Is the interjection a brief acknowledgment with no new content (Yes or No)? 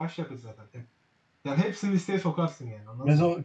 No